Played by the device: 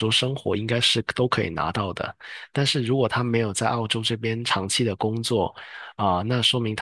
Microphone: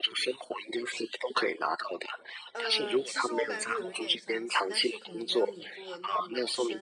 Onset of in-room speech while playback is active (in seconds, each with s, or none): 2.5 s